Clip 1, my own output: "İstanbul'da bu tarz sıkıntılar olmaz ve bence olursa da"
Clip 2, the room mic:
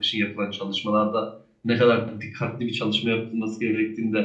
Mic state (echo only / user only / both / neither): user only